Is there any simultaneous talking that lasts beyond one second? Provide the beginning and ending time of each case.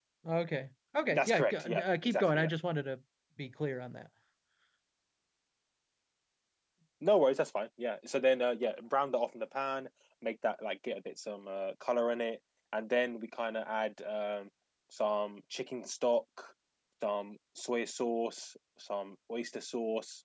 1.1-2.5

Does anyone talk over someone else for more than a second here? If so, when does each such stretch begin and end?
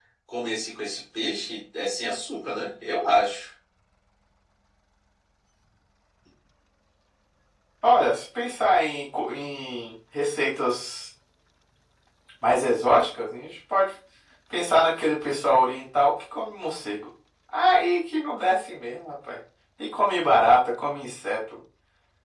none

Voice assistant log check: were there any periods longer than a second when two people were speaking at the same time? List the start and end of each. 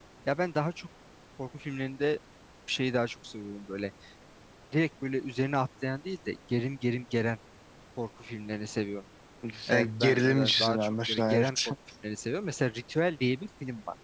9.7-11.5

